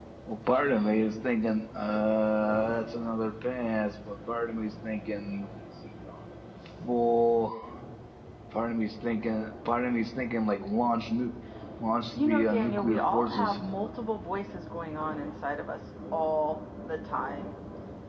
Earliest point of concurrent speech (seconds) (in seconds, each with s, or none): 12.1 s